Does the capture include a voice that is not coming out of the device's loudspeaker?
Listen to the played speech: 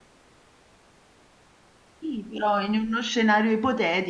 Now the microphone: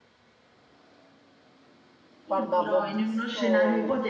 Yes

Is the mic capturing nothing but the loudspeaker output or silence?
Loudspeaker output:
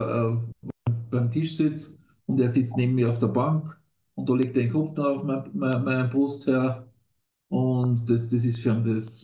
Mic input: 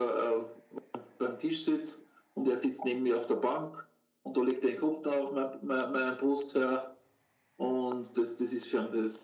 Yes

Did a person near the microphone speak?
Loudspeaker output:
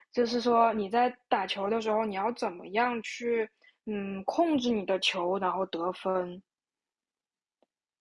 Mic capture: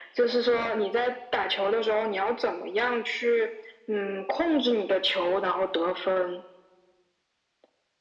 No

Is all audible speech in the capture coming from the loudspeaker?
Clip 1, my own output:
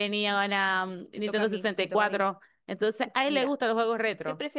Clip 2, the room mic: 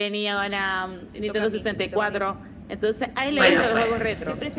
No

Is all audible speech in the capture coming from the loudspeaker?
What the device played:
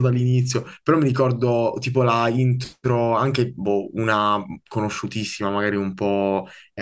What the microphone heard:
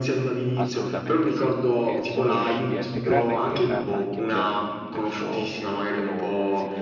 No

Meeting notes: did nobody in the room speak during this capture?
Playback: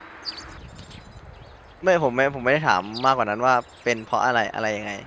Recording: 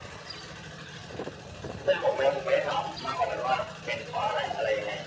Yes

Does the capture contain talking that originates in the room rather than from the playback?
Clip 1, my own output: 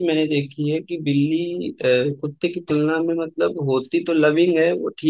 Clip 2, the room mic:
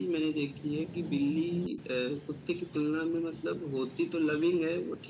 No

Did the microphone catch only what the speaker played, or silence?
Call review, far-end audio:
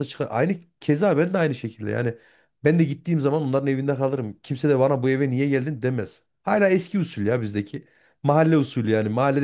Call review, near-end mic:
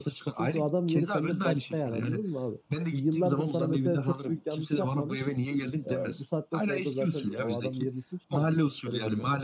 No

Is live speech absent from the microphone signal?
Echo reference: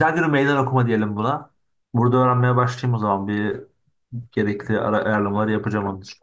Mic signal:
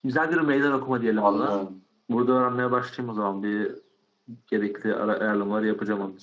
No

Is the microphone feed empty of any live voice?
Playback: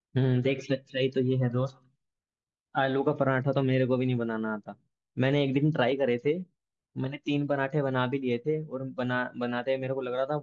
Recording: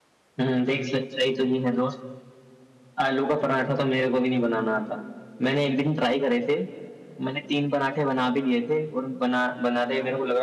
Yes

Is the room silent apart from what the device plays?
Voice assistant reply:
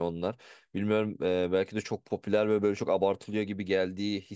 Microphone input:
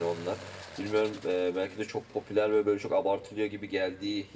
Yes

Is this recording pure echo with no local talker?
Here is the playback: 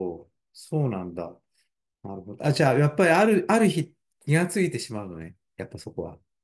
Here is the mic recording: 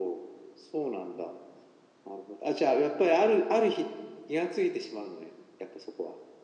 Yes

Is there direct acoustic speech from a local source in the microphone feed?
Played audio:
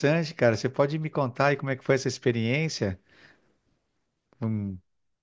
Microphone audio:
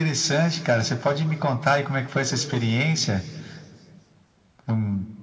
Yes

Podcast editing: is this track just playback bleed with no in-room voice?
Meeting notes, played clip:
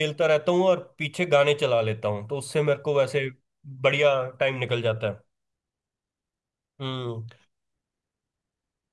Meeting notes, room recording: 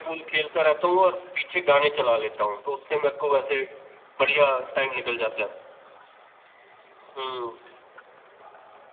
Yes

